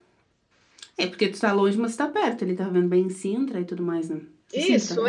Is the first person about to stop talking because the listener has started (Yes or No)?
Yes